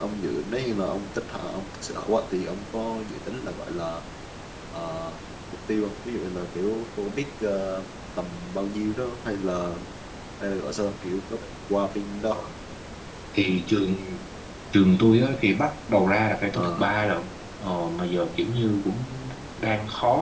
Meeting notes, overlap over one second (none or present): none